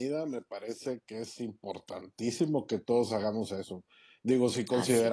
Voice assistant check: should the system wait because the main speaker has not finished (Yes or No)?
Yes